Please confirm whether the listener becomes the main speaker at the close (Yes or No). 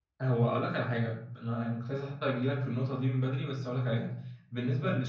No